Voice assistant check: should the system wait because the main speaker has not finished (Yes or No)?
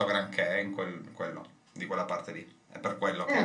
No